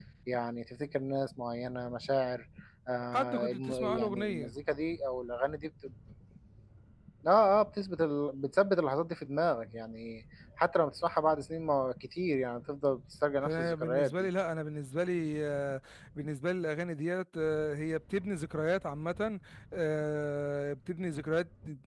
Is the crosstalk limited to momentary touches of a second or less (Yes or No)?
No